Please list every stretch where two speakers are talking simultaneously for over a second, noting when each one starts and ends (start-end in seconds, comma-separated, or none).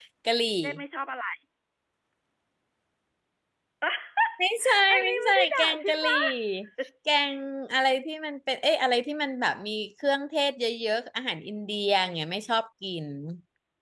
4.9-6.1